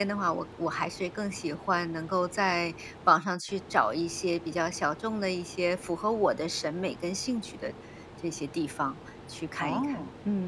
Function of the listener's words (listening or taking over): taking over